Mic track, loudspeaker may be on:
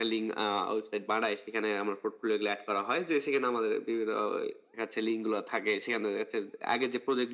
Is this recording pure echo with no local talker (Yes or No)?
Yes